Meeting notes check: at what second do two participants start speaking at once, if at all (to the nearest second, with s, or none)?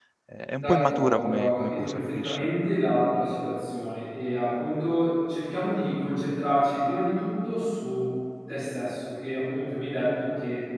1 s